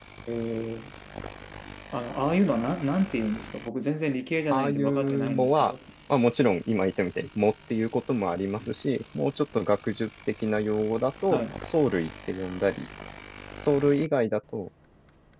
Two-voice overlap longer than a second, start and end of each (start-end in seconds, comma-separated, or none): 4.5-5.8